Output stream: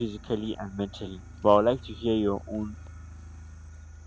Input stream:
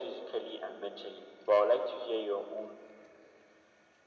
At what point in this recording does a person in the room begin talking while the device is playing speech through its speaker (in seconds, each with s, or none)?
none